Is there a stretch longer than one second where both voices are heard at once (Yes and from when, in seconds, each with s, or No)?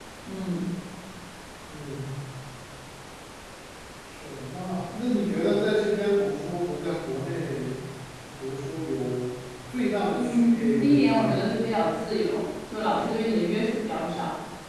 Yes, from 10.2 s